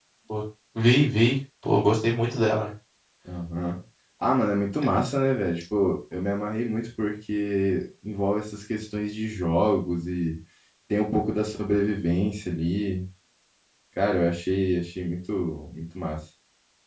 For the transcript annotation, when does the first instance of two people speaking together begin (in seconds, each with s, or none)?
none